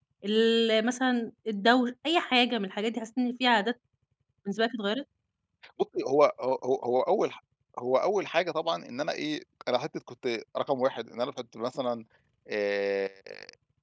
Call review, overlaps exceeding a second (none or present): none